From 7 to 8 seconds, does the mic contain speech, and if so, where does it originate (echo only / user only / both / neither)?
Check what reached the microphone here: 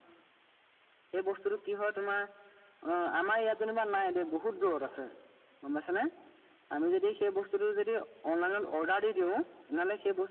echo only